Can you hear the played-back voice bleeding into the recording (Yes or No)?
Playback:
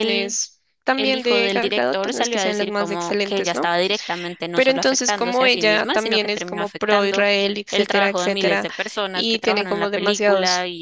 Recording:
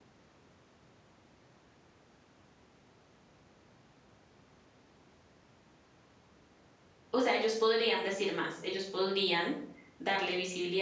No